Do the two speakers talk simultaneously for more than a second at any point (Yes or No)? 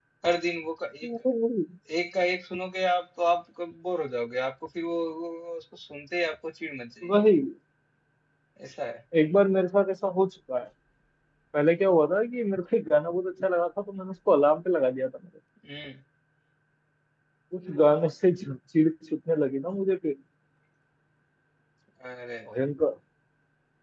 No